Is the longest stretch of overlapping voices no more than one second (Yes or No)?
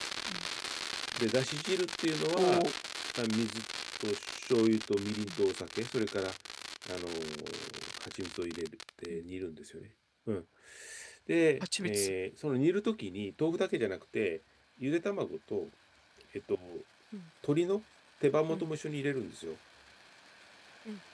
Yes